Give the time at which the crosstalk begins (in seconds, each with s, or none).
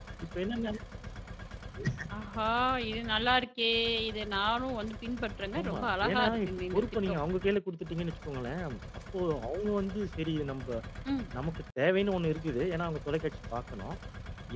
5.5 s